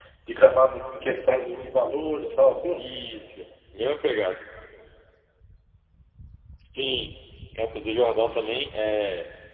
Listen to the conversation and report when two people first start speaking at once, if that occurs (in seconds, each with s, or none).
none